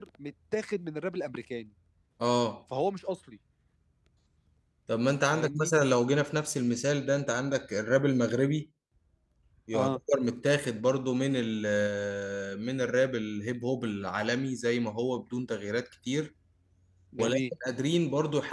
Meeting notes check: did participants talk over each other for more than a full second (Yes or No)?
No